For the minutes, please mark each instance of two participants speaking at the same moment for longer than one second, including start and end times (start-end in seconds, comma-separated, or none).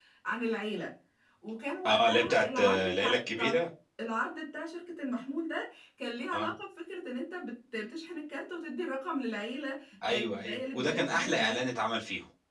1.9-3.6, 10.1-11.7